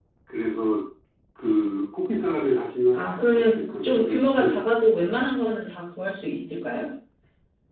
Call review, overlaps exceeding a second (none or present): present